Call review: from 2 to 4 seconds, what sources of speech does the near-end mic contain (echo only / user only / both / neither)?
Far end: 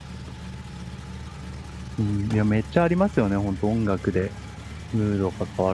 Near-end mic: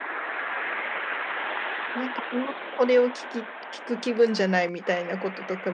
user only